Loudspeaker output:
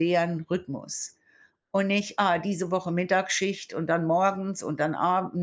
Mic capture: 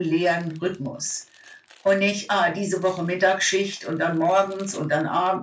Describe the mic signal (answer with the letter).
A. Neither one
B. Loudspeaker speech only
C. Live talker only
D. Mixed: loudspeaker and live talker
B